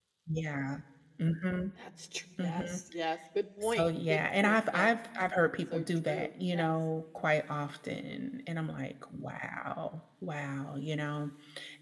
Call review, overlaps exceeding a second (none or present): present